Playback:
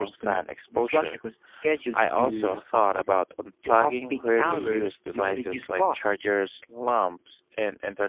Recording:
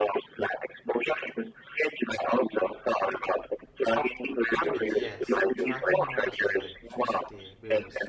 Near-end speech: present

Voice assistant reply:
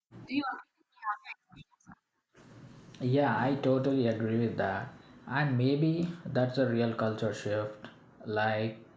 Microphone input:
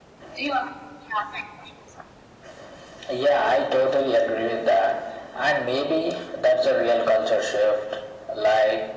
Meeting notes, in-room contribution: none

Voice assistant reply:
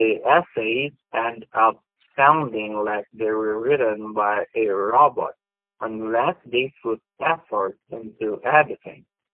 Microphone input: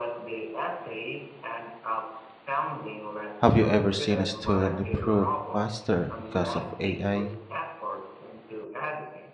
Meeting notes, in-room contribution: present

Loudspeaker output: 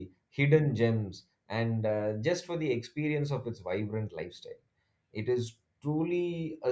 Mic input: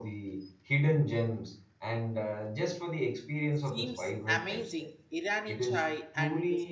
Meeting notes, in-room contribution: present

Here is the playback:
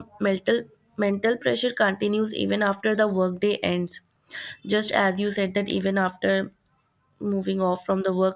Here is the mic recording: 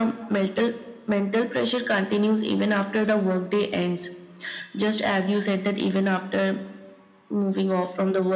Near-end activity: none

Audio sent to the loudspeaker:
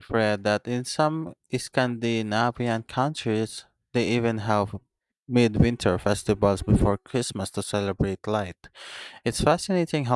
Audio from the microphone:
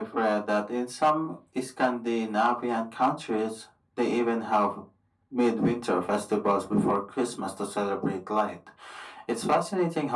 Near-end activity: none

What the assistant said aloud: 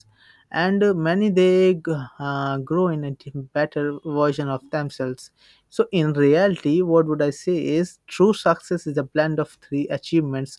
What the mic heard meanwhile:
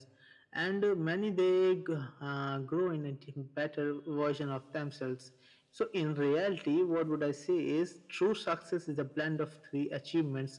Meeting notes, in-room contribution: none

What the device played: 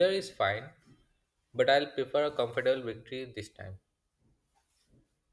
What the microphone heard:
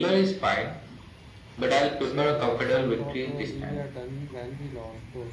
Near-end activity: present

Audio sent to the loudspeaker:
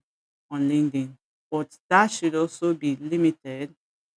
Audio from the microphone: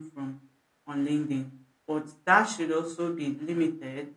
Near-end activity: none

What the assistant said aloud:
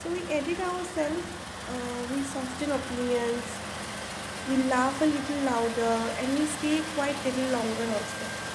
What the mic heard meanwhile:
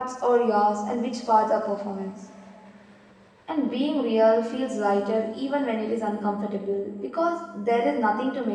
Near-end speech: present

